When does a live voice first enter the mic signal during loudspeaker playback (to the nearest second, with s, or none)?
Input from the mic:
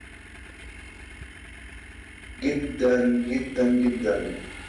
2 s